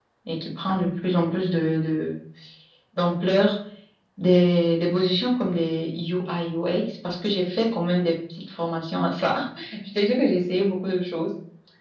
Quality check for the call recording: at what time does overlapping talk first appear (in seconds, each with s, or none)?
none